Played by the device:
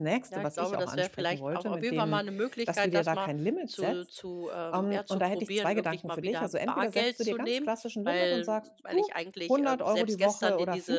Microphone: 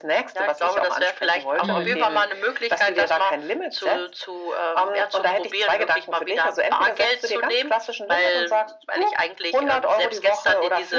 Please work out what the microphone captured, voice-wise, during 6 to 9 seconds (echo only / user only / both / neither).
echo only